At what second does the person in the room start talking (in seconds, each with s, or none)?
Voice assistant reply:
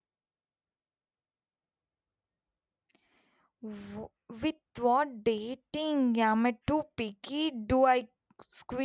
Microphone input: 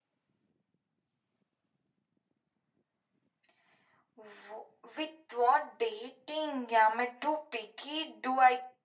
none